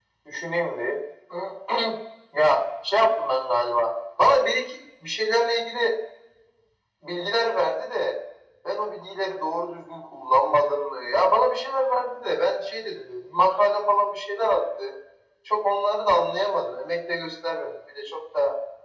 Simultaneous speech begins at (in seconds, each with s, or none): none